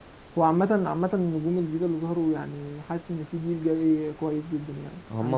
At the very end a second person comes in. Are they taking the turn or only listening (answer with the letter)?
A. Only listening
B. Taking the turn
B